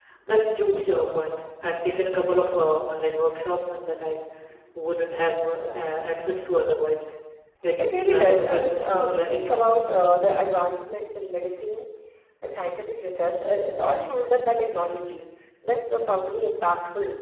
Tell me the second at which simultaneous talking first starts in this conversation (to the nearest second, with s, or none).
8 s